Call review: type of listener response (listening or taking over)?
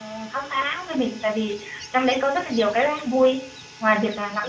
listening